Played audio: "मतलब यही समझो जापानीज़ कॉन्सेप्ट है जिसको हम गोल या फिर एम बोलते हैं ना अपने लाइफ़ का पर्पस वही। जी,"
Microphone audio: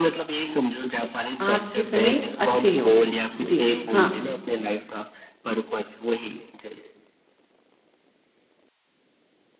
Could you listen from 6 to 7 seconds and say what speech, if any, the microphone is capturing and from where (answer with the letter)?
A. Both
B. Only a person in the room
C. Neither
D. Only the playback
D